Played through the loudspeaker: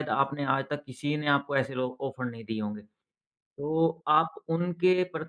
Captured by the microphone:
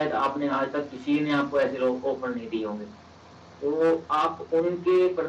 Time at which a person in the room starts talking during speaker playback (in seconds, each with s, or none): none